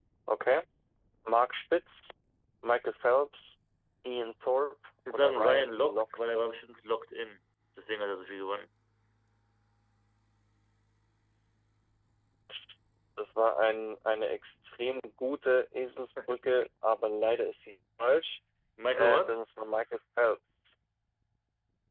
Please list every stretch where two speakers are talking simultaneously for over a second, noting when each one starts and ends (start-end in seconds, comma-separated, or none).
5.1-6.4